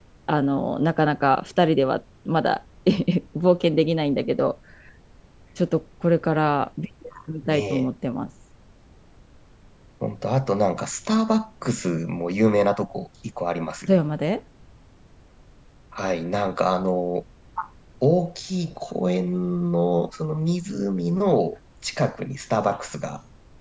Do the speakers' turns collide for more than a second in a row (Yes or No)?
No